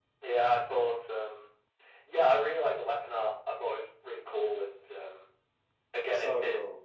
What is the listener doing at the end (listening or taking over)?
listening